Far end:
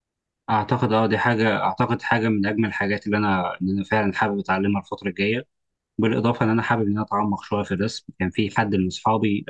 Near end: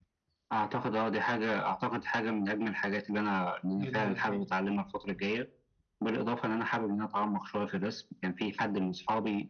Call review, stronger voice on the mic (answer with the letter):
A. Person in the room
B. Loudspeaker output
B